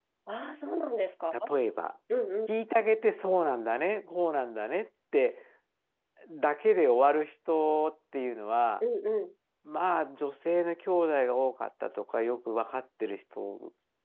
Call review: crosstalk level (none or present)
none